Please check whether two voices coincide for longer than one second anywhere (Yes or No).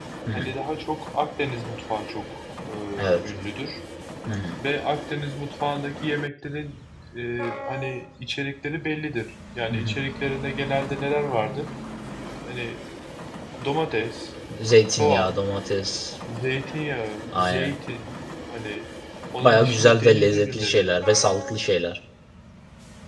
Yes